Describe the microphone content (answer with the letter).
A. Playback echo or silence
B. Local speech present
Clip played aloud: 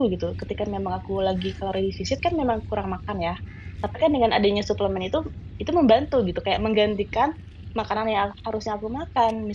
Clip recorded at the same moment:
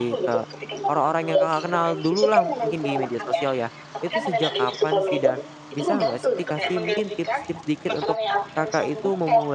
B